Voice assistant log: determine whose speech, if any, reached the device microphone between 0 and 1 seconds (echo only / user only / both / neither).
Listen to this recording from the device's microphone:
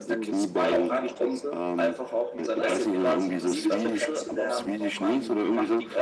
both